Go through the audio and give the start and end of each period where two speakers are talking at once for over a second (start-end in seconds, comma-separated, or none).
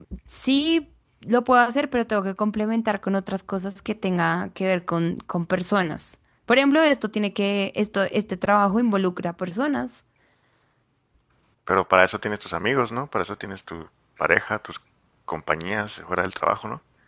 none